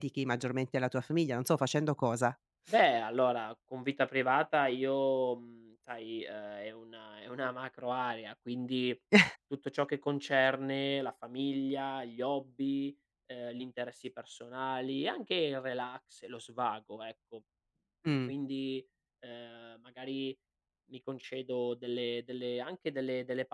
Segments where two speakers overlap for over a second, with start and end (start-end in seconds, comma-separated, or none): none